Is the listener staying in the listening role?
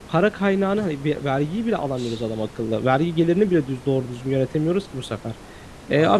Yes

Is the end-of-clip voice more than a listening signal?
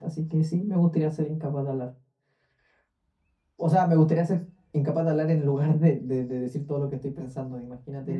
Yes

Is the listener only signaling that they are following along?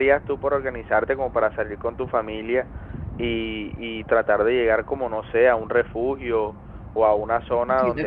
No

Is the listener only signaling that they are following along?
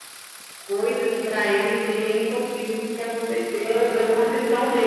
No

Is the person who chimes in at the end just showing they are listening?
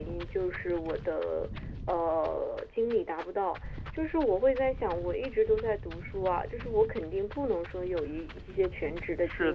No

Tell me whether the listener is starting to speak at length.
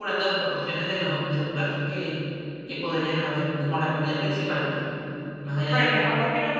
Yes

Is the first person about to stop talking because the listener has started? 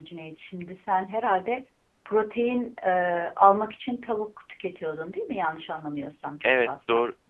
Yes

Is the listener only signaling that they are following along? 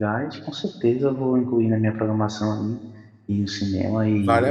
No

